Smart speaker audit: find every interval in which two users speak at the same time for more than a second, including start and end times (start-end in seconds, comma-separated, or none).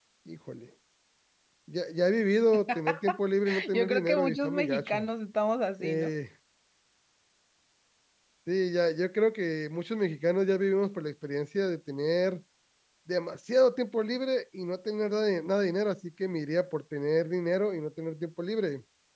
3.7-5.0